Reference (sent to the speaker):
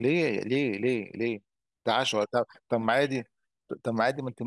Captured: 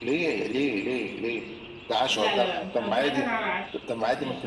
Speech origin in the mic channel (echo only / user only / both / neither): both